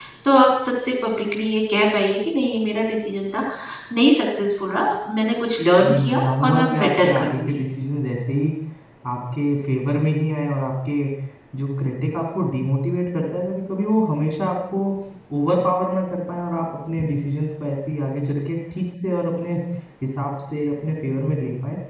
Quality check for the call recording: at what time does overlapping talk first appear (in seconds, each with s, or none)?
5.8 s